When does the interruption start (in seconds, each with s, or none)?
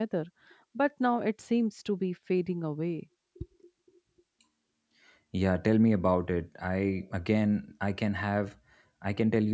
none